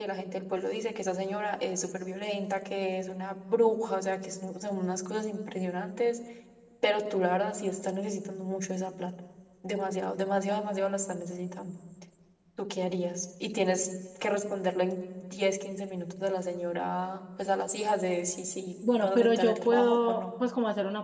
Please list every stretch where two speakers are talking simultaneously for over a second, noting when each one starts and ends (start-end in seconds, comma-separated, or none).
19.0-20.2